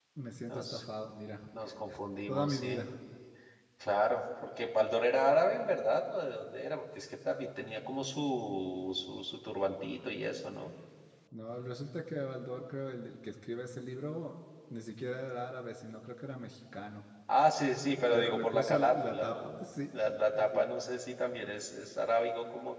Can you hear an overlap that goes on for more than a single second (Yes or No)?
Yes